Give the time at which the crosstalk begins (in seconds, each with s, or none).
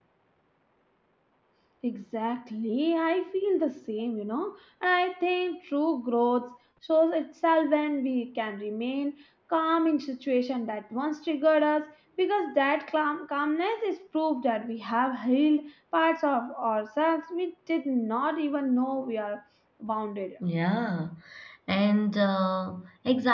none